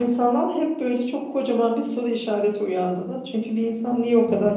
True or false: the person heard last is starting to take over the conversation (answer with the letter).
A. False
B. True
A